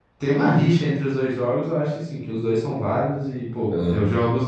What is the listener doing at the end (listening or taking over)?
listening